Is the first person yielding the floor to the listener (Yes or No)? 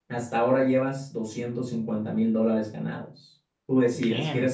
No